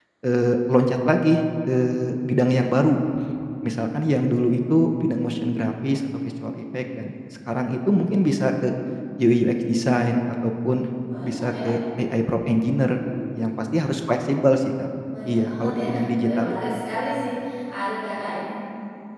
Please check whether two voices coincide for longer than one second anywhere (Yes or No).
Yes